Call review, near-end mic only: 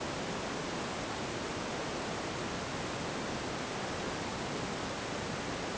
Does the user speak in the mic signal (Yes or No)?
No